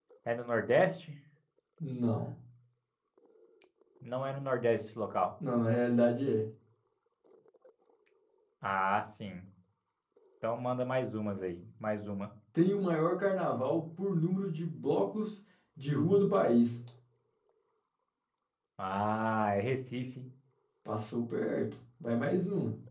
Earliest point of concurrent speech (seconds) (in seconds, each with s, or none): none